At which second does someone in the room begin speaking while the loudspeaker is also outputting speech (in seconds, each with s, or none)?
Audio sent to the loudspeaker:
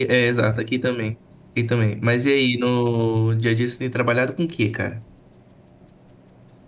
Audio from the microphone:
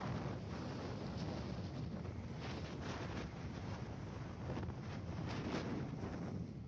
none